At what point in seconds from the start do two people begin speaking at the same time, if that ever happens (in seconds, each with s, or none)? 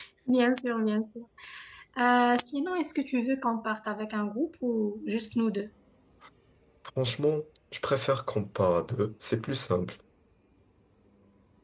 none